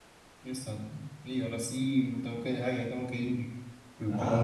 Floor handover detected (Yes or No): No